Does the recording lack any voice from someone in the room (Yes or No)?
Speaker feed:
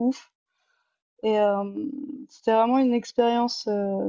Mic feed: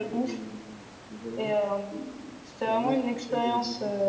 No